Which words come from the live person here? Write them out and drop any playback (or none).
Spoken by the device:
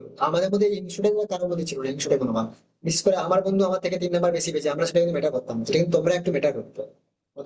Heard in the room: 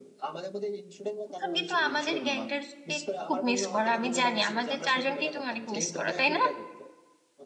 এখন কিন্তু আমাদের গ্যাংটারকে খুব মিস করো আমি জানি আমাদের চারজনকেই তুমি অনেক মিস করো তাই না